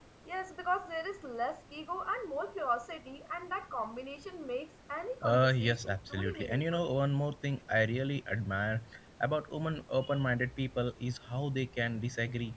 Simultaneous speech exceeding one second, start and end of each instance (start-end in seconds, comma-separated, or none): 5.2-6.8